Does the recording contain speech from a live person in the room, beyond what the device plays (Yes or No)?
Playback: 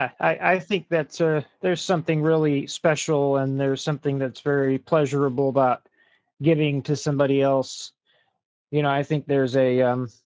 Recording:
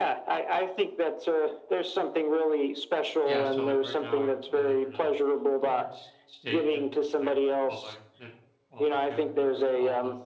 Yes